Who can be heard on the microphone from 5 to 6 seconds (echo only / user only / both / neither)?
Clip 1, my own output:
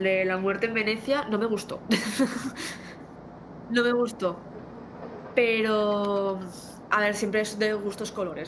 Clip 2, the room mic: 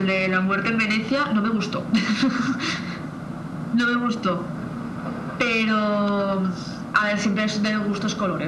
echo only